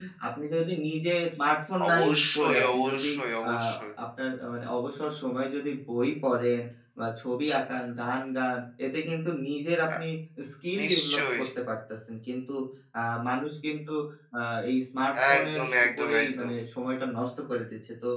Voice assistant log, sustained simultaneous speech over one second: present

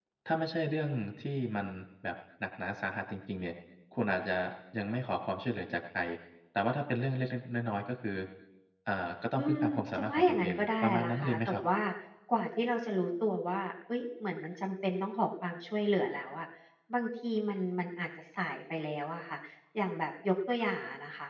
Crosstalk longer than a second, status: present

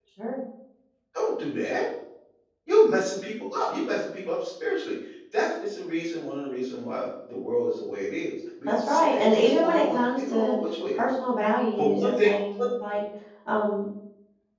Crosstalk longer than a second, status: present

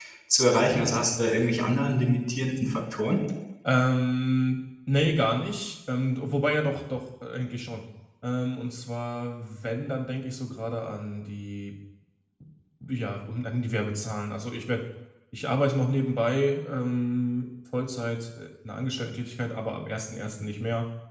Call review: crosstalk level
none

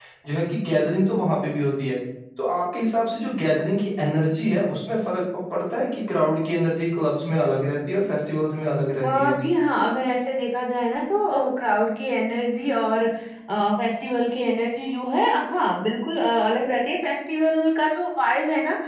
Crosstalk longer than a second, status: none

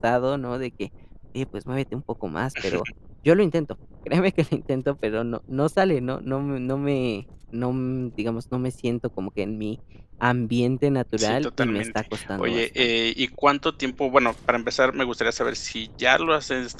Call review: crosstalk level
present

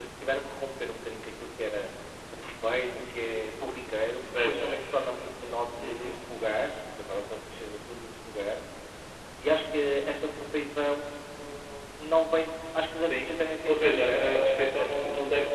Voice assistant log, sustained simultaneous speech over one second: present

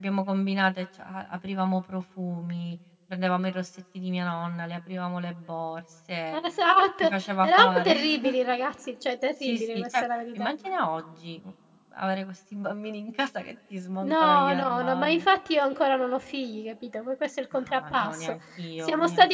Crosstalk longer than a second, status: present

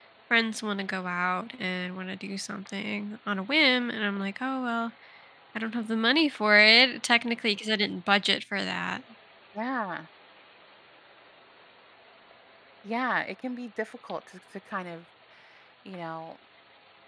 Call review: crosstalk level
none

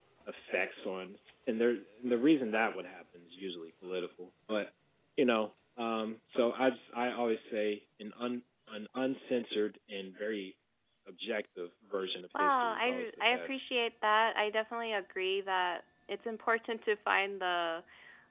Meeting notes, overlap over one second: present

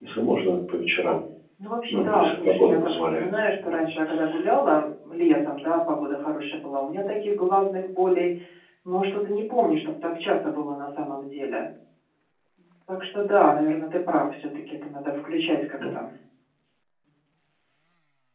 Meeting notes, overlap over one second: present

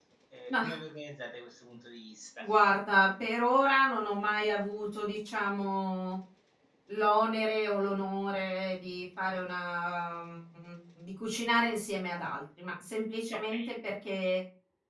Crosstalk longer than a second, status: none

